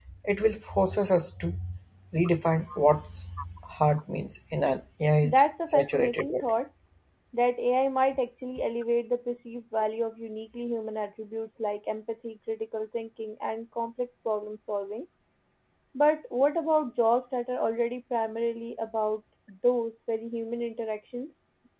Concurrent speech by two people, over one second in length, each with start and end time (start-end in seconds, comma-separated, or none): 5.2-6.4